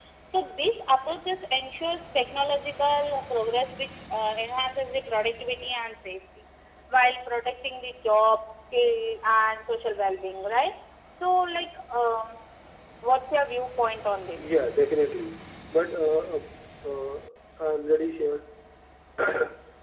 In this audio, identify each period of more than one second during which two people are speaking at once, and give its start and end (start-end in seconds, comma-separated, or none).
none